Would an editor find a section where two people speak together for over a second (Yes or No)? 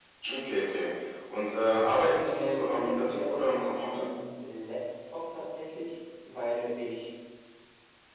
Yes